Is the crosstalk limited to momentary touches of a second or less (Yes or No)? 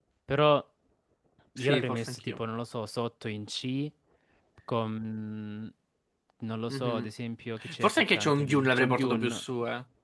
No